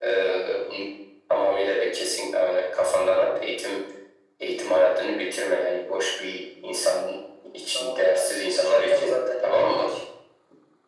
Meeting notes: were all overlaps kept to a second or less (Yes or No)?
No